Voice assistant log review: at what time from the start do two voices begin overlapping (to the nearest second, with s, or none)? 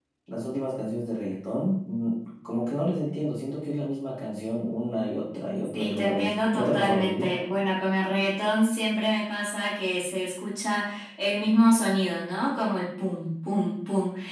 6 s